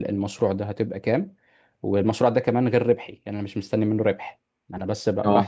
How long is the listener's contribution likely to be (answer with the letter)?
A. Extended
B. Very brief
B